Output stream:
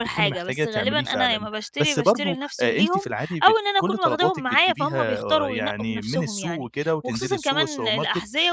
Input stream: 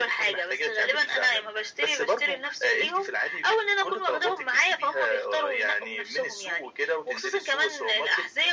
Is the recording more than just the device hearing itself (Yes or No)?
No